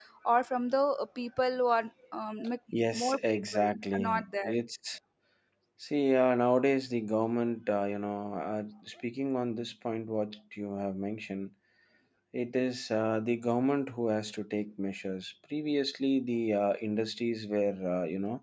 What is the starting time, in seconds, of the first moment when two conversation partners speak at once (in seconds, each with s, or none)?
2.7 s